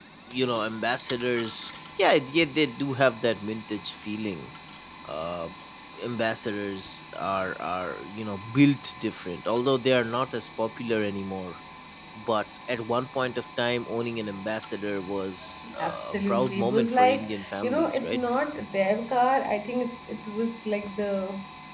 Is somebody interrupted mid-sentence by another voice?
Yes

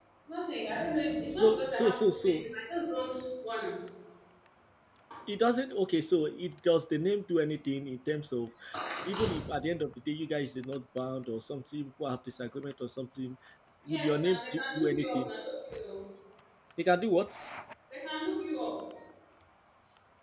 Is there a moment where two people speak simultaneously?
Yes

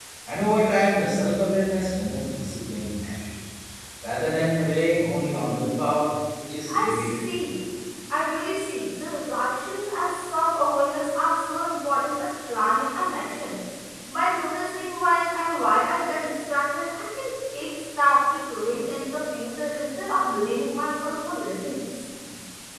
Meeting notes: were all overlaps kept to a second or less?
Yes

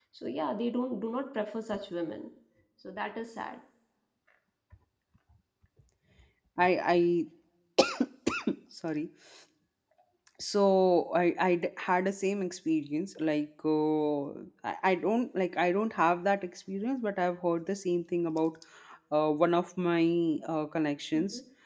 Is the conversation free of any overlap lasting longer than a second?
Yes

